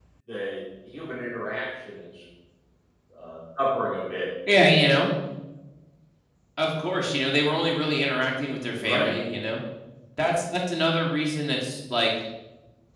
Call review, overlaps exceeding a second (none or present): none